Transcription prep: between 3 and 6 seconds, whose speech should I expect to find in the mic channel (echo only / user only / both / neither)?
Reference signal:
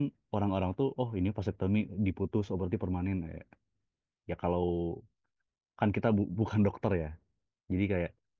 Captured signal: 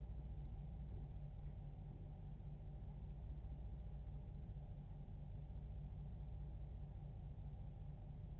neither